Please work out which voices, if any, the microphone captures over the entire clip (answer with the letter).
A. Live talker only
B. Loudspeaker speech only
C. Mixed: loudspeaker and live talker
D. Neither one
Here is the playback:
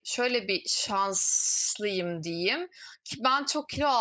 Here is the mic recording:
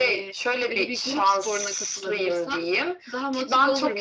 C